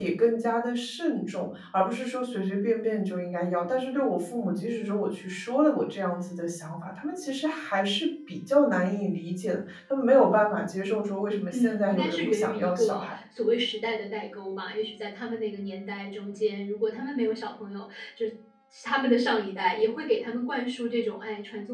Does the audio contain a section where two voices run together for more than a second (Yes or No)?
Yes